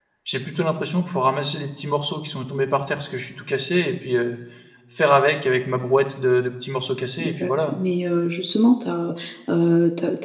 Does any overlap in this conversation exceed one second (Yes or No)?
No